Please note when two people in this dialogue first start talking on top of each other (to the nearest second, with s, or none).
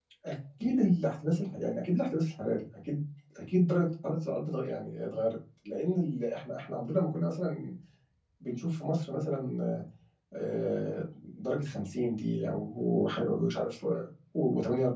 none